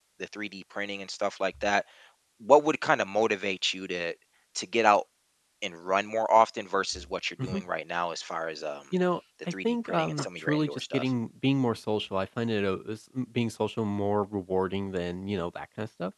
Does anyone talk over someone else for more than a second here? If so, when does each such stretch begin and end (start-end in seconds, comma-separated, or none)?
9.6-11.0